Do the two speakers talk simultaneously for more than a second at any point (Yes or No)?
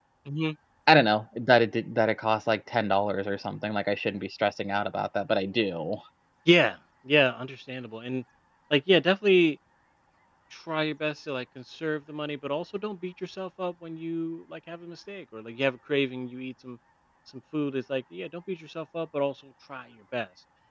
No